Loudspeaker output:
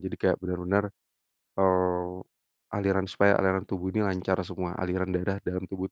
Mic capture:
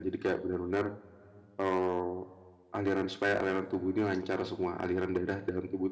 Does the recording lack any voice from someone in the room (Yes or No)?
Yes